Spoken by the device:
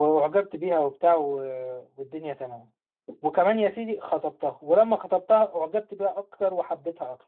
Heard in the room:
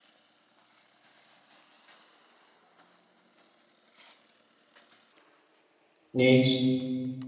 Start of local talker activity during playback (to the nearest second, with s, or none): 6 s